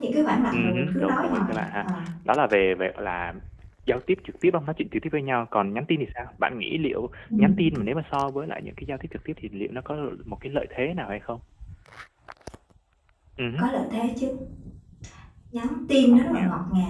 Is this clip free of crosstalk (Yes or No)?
No